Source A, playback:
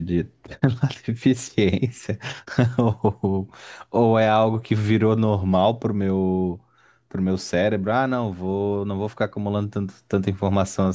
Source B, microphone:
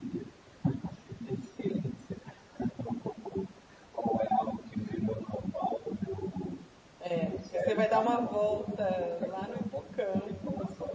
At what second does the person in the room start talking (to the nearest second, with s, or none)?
7 s